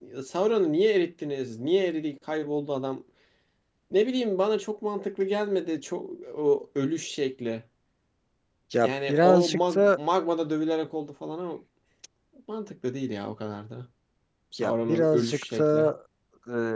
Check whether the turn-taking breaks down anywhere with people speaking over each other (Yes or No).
Yes